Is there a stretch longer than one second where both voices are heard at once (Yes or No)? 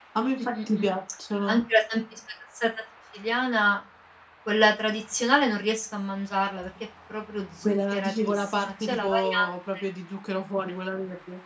Yes